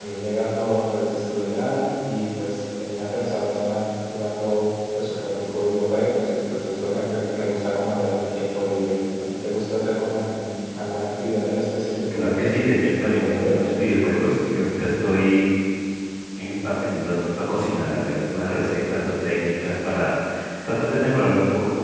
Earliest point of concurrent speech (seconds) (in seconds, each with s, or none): 12.1 s